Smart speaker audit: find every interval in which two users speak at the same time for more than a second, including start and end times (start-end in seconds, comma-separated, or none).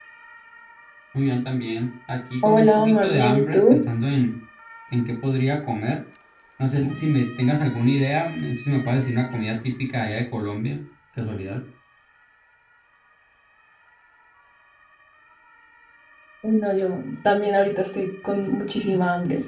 2.4-3.8